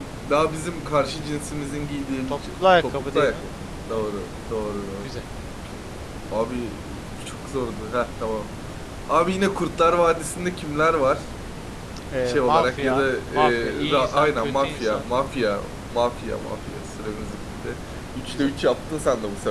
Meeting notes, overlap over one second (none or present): present